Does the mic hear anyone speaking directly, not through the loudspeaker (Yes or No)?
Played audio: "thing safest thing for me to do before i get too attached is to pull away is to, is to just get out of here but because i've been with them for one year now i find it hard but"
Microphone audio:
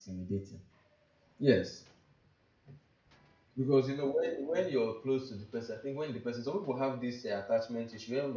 Yes